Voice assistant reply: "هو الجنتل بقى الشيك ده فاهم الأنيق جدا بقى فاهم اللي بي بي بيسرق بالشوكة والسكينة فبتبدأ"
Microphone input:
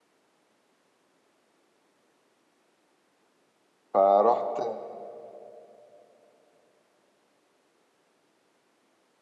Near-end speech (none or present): present